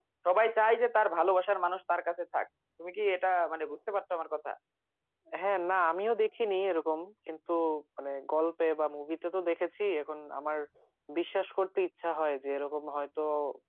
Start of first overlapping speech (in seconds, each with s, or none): none